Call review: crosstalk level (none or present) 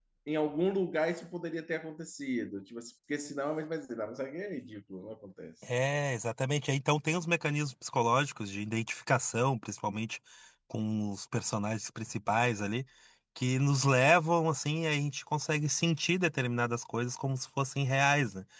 none